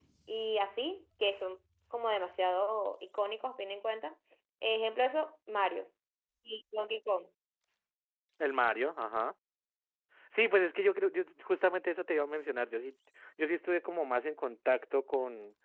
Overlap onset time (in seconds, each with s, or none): none